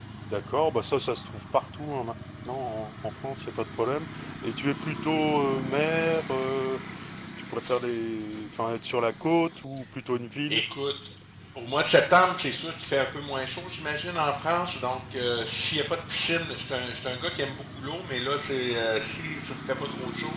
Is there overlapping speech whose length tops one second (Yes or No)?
No